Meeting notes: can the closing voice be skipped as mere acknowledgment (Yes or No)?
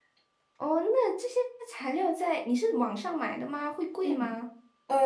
No